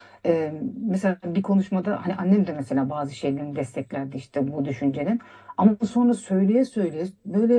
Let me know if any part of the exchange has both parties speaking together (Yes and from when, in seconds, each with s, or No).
No